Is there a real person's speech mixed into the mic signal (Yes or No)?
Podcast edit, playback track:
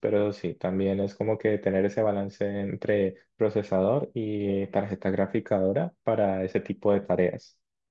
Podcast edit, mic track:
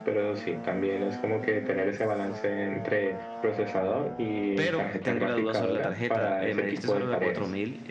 Yes